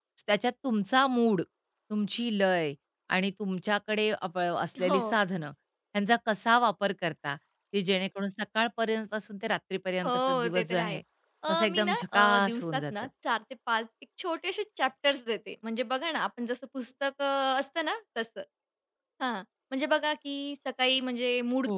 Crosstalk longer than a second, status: present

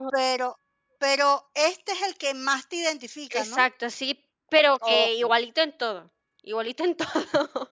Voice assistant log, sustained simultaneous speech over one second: none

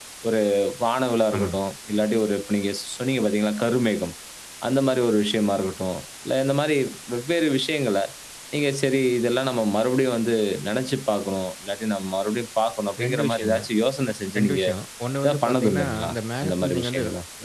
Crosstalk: present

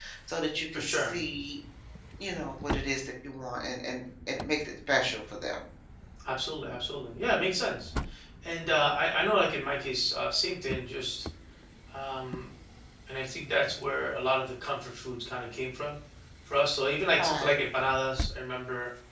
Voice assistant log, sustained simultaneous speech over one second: none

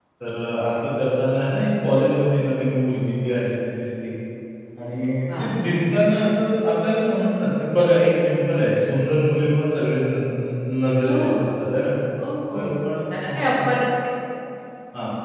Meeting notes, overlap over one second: none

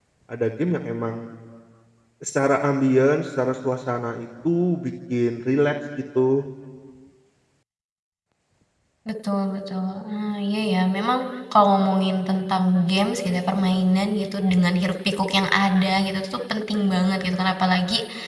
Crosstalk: none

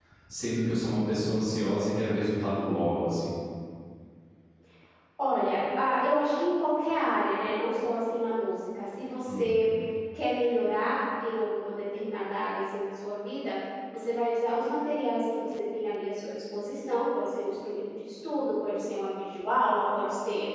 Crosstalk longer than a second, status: none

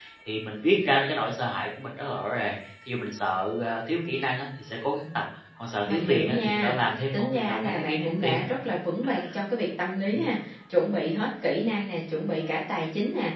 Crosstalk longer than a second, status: present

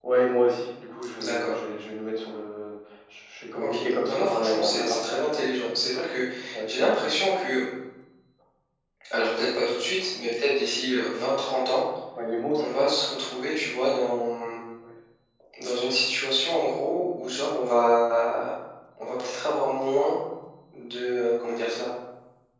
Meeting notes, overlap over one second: present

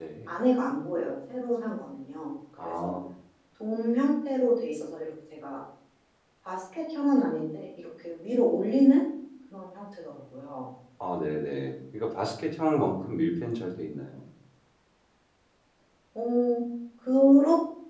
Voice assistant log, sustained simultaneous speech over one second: none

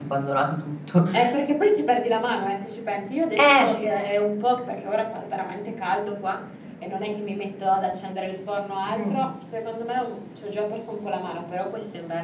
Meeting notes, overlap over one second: none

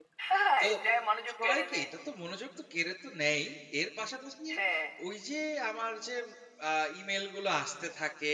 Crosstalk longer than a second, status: none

